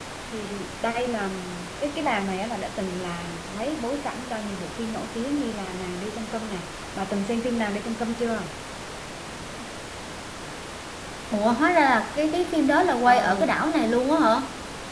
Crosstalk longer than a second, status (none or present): none